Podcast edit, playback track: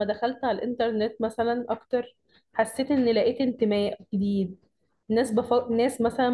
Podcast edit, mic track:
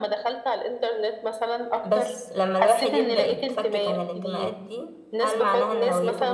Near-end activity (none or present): present